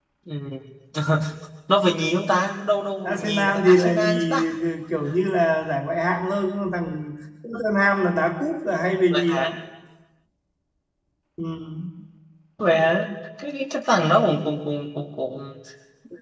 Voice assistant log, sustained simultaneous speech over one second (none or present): present